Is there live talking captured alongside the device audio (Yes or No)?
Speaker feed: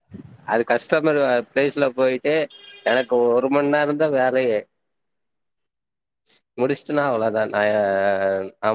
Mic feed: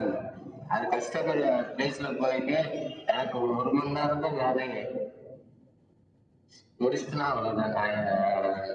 No